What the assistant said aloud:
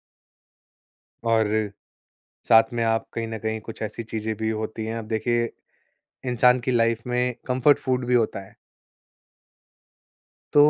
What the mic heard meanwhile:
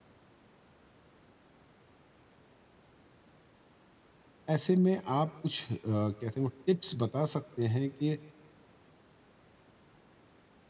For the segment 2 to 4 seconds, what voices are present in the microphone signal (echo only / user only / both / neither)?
neither